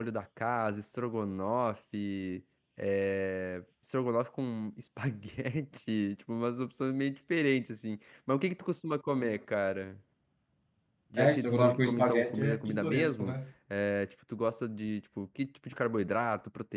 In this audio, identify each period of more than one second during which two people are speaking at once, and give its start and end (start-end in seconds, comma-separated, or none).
11.2-13.4